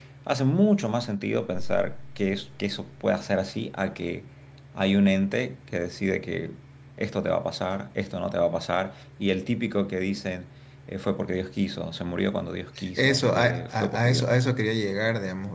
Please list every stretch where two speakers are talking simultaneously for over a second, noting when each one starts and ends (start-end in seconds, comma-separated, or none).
13.0-14.2